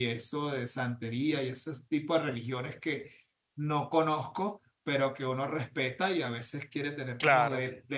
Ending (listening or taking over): listening